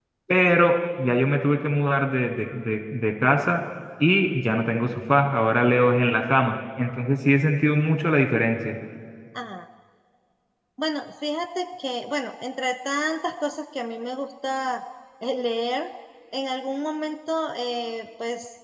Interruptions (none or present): none